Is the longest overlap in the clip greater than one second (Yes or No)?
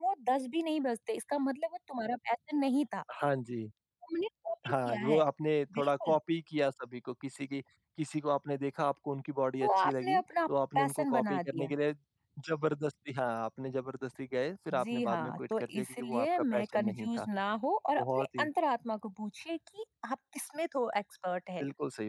Yes